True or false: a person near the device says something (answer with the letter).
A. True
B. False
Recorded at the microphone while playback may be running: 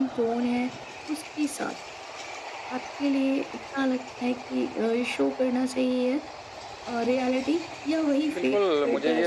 A